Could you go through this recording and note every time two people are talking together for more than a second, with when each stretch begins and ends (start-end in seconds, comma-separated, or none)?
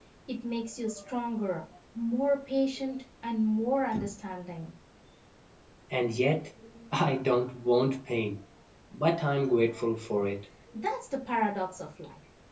none